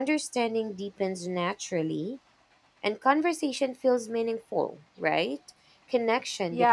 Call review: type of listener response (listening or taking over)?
taking over